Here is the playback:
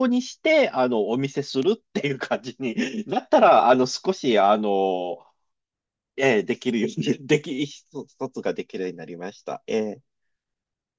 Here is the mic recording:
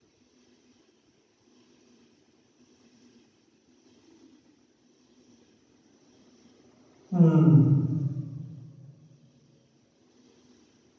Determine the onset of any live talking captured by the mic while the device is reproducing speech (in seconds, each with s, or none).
7.1 s